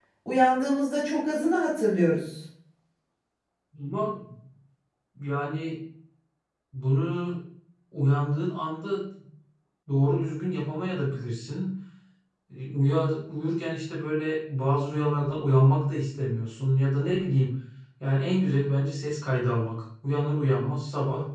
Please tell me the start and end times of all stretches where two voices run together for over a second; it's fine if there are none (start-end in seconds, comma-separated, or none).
none